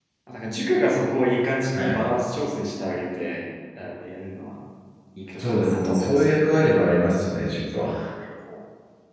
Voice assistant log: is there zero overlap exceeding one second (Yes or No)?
No